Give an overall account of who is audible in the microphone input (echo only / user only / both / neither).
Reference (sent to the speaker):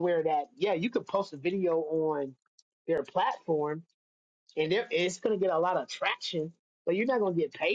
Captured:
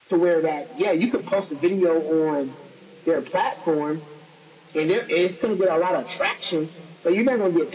echo only